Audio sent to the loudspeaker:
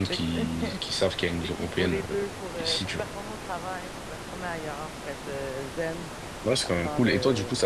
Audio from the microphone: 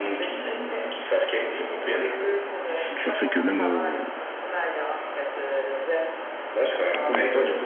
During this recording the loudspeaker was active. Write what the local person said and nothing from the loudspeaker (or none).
Ça fait que même, euh,